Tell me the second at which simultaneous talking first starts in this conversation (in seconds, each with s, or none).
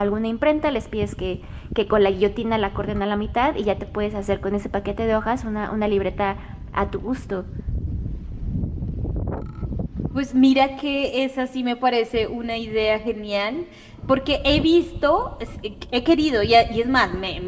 none